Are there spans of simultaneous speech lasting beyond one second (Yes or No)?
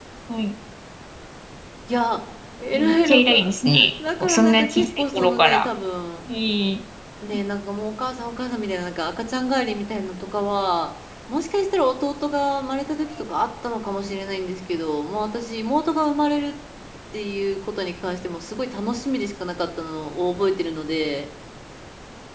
Yes